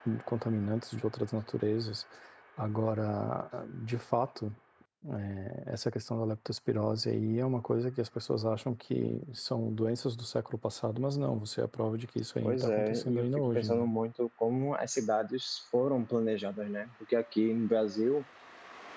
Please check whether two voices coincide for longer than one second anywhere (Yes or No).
Yes